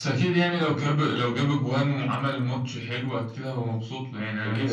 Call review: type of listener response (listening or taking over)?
taking over